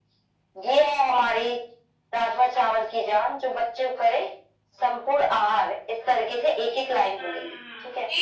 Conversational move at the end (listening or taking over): taking over